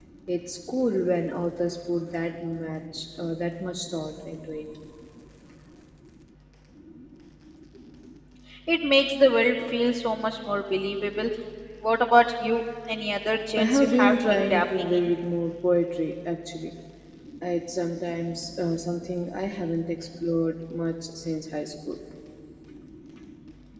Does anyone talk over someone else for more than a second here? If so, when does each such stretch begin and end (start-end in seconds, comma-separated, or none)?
13.6-15.1